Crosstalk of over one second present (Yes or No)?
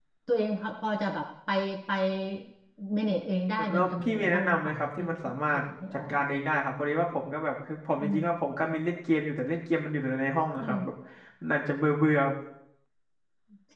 Yes